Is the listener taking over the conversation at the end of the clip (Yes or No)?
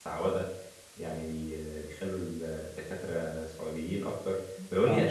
No